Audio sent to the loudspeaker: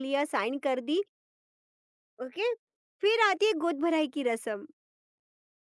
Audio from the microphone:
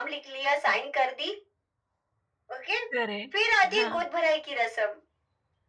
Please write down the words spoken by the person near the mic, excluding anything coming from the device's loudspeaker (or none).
करेक्ट, हाँ।